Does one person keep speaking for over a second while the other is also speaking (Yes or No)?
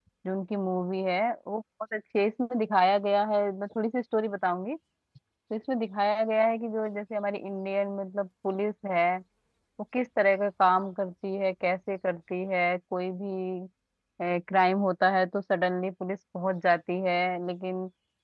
No